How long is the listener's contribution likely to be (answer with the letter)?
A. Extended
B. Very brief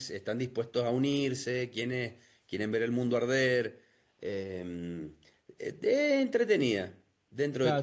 A